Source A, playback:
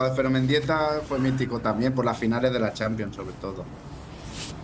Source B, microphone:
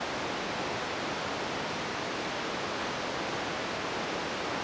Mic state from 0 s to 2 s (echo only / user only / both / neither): neither